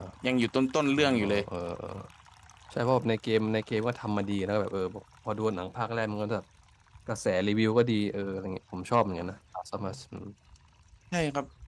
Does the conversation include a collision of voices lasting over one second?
No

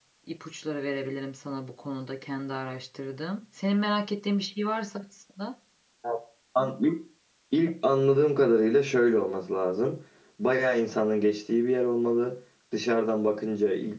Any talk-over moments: No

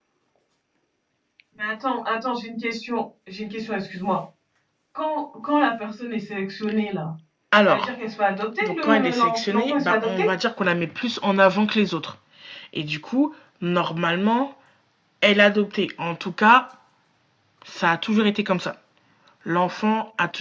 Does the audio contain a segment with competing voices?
Yes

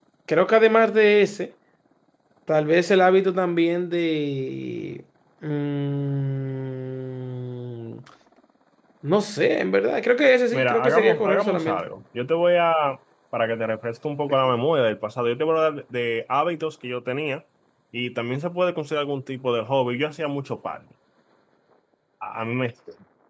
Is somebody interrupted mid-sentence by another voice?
Yes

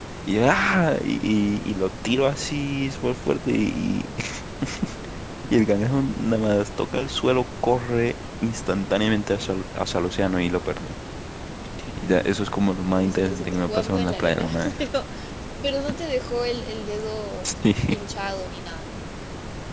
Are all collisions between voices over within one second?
No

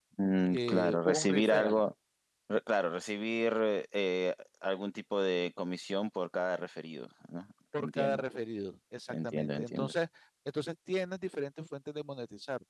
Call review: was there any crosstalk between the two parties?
Yes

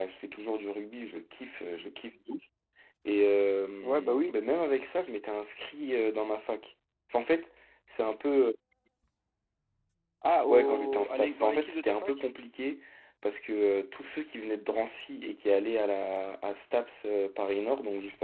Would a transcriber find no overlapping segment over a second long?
No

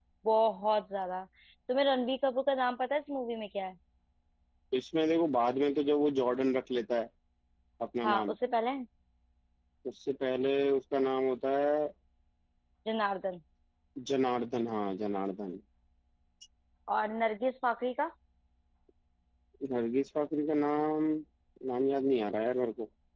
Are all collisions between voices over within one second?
Yes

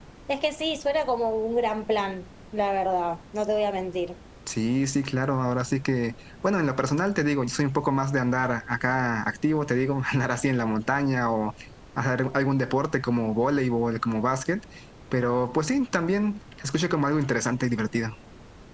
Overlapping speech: No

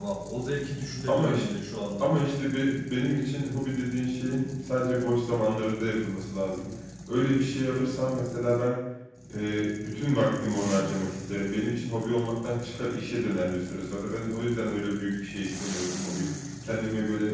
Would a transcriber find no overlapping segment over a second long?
Yes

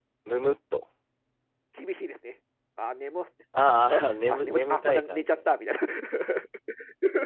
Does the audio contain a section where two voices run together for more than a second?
Yes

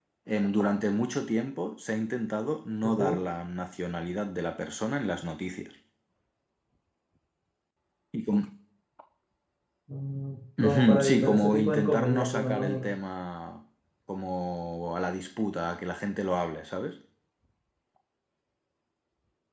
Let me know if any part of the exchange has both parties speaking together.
Yes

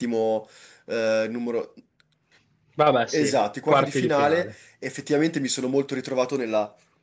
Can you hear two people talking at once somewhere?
Yes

